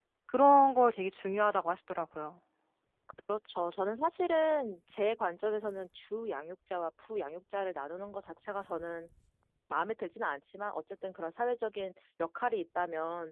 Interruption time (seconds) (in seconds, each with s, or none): none